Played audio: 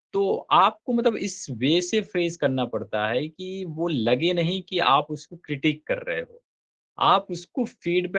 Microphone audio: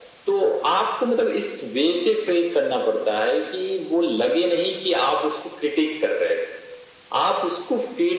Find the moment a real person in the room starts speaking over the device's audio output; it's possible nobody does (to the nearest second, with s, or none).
none